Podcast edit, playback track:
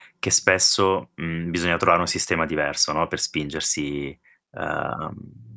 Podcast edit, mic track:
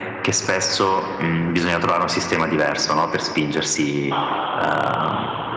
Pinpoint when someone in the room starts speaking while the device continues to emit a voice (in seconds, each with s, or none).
none